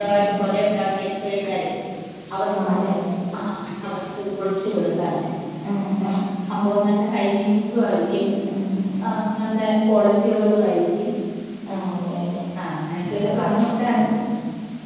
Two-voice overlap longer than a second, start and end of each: none

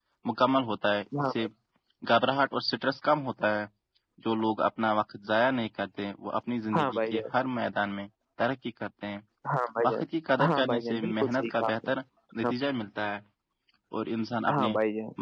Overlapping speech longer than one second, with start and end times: 10.5-11.9

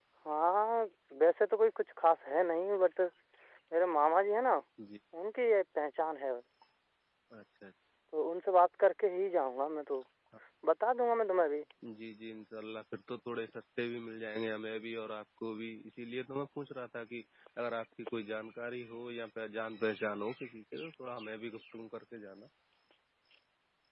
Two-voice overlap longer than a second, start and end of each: none

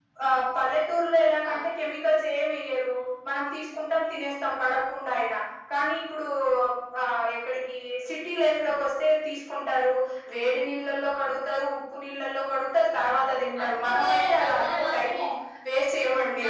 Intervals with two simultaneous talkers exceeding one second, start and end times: 13.6-15.1

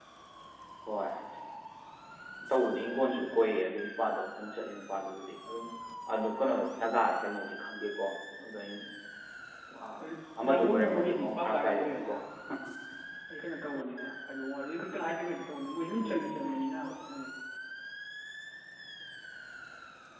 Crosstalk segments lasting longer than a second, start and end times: 10.5-12.1

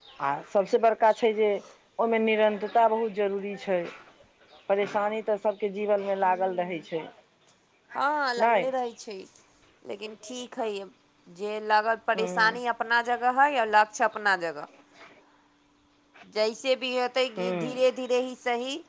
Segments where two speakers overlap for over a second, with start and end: none

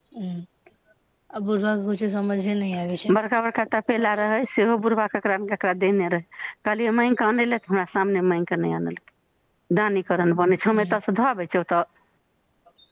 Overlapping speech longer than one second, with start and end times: none

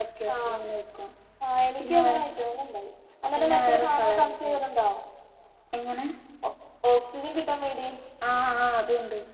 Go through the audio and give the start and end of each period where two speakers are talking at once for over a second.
3.3-4.6

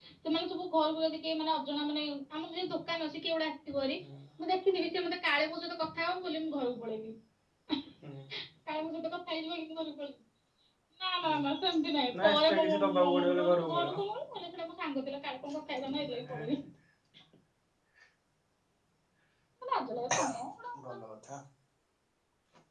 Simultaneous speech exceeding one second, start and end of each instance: 12.2-13.9

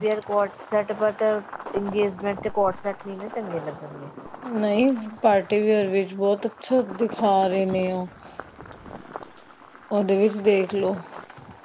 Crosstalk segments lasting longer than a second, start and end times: none

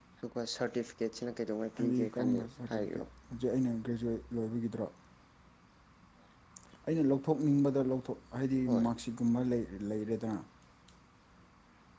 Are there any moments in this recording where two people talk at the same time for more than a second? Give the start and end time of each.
1.8-3.0

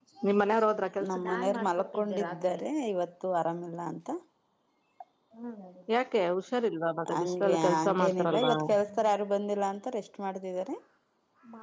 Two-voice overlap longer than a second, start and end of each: 7.2-8.5

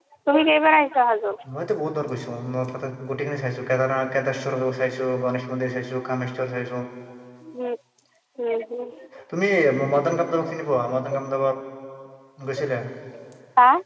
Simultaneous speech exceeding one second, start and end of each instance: none

